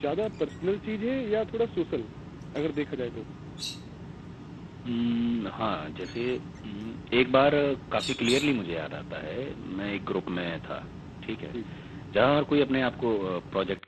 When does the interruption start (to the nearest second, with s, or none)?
none